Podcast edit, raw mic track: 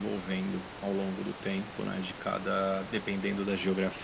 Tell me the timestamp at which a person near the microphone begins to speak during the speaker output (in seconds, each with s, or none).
none